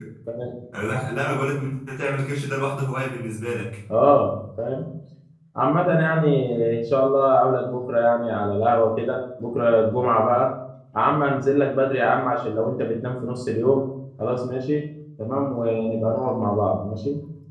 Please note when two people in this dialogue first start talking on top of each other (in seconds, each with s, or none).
none